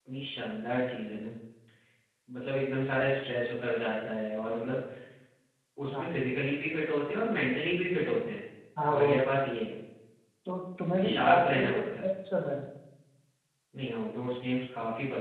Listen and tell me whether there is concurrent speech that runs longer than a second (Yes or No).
Yes